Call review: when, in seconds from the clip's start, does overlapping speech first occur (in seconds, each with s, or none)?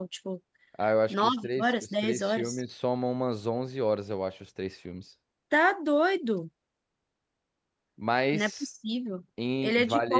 1.1 s